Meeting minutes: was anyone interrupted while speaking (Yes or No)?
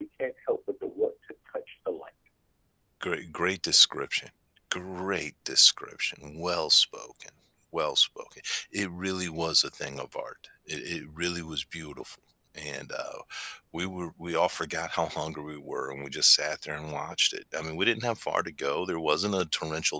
No